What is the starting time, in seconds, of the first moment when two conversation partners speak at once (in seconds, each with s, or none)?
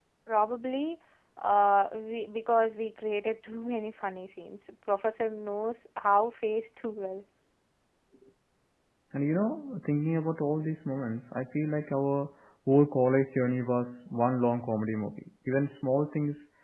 none